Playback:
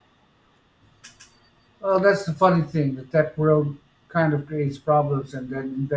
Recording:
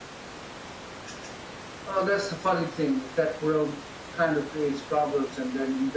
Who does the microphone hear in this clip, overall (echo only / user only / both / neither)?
echo only